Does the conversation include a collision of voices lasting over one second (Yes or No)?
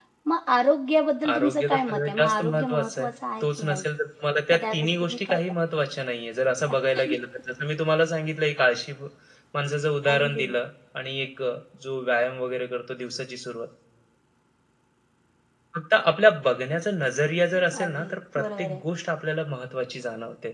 Yes